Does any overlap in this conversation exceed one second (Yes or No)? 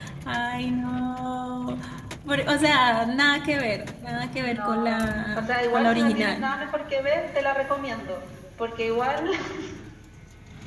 Yes